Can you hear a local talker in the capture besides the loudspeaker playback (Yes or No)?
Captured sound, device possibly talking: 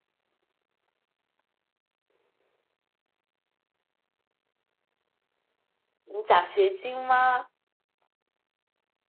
Yes